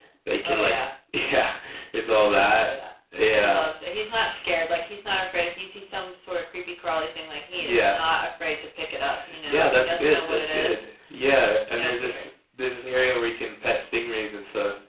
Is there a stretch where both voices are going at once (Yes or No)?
Yes